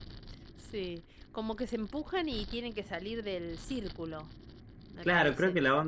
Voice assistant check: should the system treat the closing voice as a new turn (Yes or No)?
Yes